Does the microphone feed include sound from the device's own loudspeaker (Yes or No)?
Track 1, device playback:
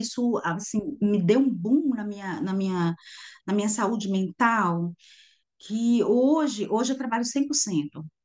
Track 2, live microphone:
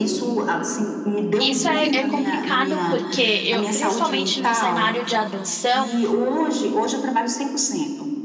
Yes